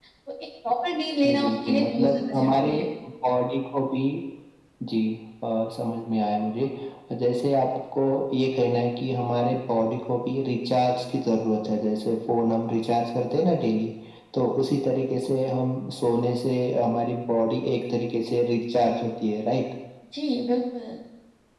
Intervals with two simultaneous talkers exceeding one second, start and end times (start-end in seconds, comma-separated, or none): 1.2-2.7